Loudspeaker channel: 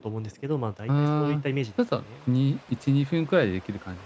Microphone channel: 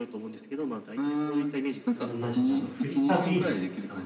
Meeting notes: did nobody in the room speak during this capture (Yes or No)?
No